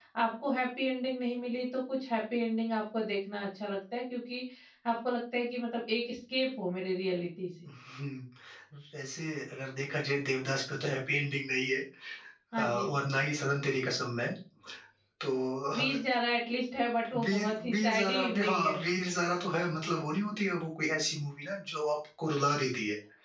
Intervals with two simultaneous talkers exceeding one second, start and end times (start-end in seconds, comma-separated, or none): 17.2-18.8